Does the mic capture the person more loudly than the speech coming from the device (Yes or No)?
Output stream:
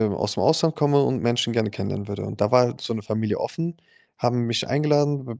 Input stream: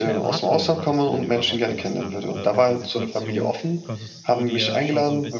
No